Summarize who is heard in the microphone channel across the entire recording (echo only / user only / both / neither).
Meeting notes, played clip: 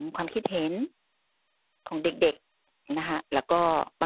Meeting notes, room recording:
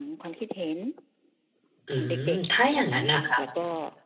both